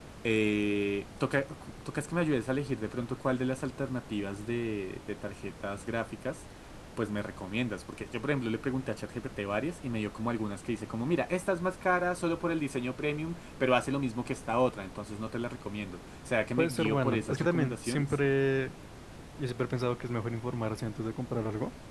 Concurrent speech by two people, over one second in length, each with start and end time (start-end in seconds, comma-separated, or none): 16.6-18.0